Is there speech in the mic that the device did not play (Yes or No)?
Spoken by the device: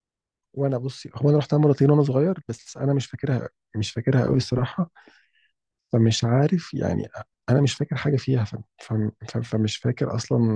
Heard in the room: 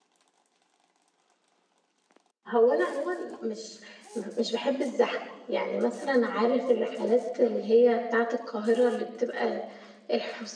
Yes